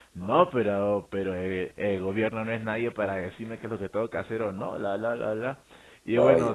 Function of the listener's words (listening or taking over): listening